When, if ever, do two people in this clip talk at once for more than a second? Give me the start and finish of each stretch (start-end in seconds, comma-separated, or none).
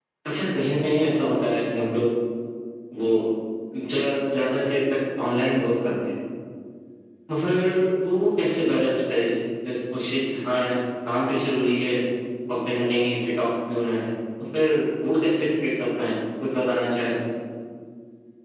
none